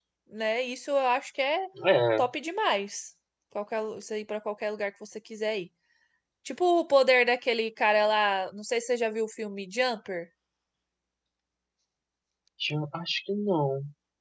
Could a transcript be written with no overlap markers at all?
Yes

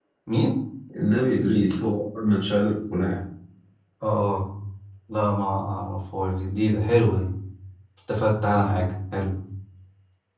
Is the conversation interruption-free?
Yes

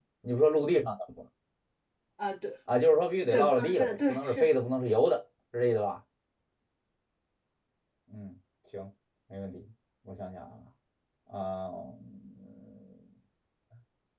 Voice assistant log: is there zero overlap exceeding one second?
No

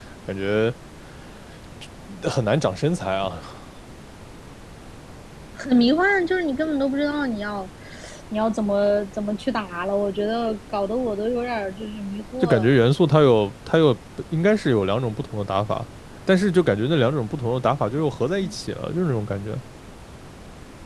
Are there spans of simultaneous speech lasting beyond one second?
No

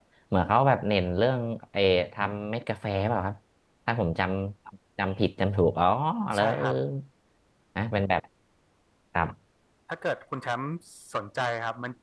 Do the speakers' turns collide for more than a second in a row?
No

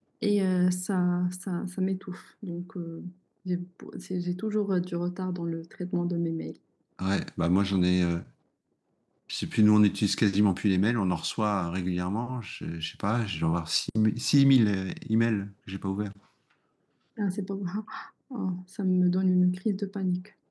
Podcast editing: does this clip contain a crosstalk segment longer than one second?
No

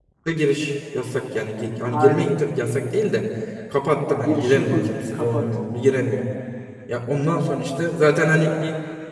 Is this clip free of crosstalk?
No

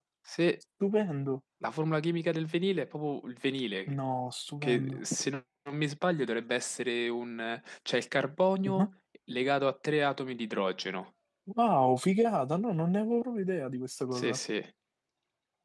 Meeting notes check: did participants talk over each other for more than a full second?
No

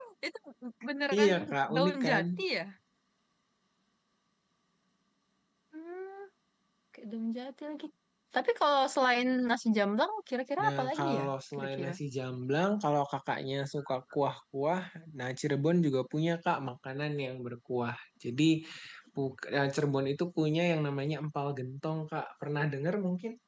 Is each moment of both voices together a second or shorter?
No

